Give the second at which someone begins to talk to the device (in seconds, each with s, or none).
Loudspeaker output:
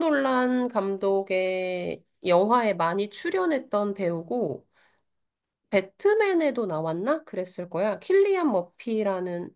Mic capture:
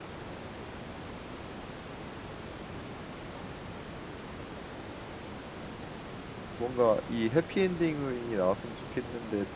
6.6 s